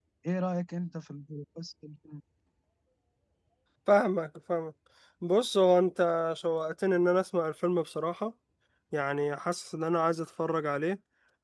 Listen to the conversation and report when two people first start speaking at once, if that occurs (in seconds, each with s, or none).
none